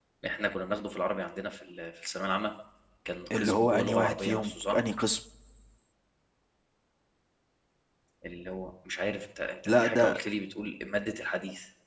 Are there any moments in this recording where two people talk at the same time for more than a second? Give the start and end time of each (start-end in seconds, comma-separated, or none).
3.4-4.8